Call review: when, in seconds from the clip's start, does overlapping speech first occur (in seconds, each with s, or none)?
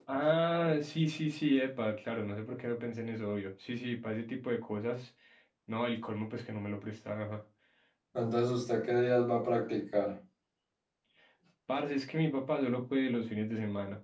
none